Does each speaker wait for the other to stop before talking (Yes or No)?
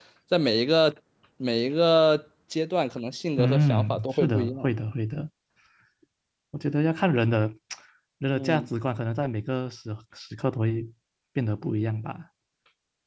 No